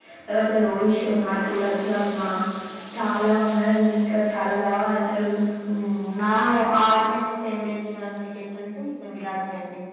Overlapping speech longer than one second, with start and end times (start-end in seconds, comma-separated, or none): none